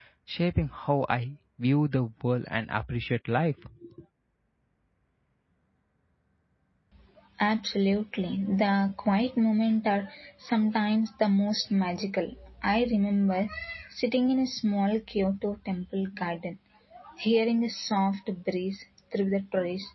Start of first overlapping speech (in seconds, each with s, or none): none